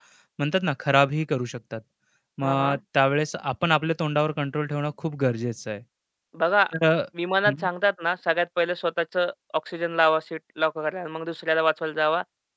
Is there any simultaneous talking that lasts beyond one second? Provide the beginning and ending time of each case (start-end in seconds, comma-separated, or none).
none